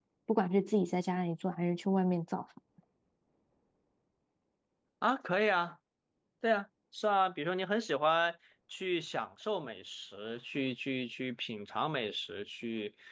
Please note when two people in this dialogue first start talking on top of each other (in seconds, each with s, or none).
none